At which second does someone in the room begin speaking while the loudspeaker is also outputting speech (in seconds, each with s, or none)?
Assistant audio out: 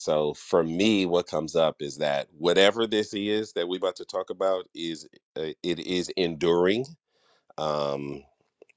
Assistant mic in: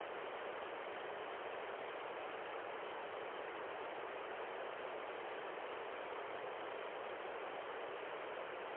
none